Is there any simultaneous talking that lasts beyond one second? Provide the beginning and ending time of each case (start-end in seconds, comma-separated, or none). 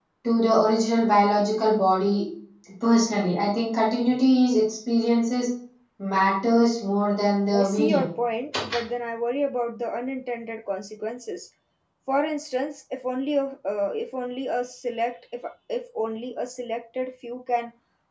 none